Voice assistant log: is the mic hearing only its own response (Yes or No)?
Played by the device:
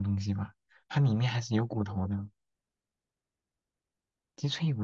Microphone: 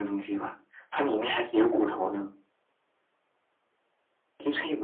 Yes